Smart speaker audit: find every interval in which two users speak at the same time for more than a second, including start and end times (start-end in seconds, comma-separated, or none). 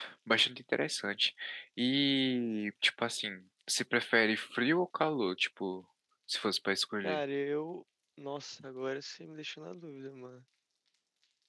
none